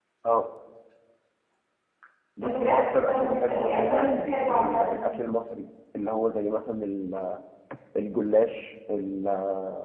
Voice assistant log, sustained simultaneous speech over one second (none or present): present